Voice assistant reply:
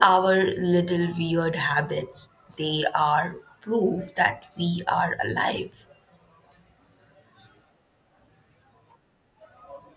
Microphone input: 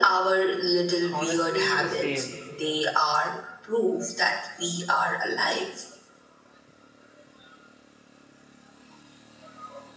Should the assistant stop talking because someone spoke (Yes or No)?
Yes